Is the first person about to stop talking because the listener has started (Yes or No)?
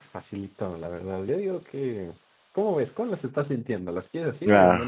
Yes